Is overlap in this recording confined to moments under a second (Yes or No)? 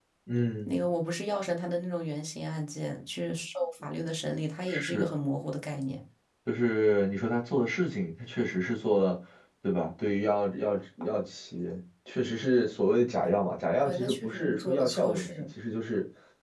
No